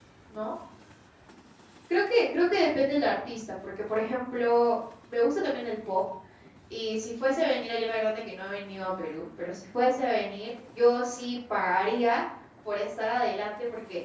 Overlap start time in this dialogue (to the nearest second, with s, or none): none